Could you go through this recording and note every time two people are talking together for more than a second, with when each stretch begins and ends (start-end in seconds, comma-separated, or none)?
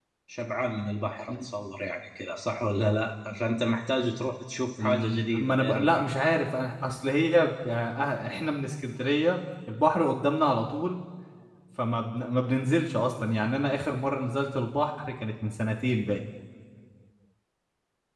4.8-6.1